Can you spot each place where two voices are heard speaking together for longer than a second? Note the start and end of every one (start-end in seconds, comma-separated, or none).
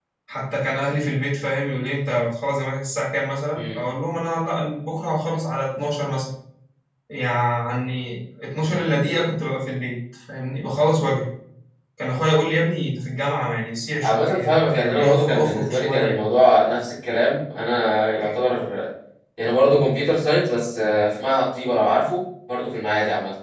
14.0-16.2